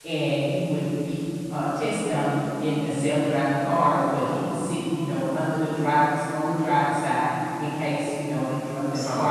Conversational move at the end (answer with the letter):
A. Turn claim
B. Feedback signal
A